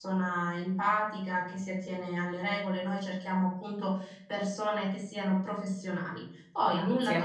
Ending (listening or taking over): listening